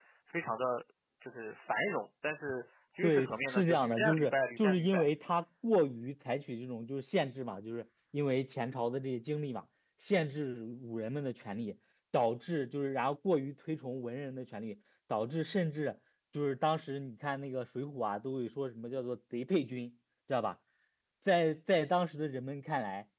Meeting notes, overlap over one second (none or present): present